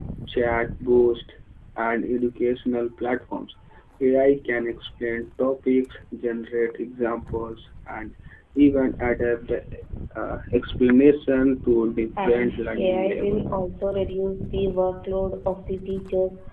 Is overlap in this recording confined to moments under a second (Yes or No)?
No